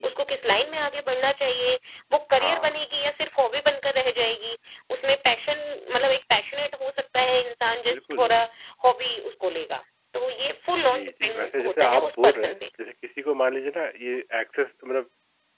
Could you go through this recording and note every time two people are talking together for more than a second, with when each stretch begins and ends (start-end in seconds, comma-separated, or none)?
10.9-12.5